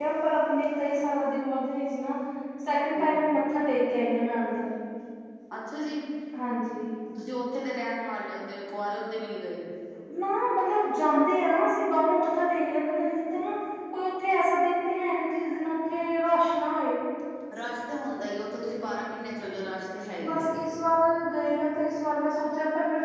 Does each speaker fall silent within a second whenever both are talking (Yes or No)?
Yes